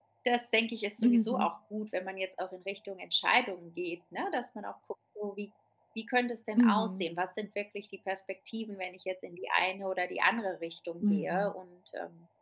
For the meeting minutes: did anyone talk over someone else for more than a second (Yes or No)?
No